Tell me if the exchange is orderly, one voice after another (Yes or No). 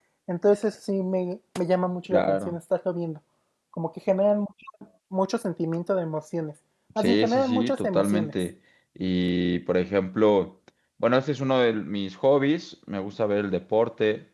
No